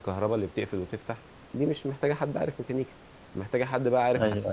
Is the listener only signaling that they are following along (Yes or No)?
Yes